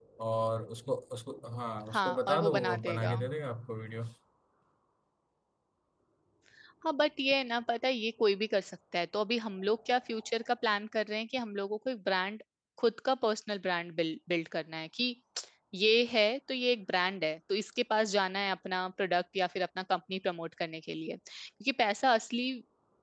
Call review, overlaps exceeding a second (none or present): present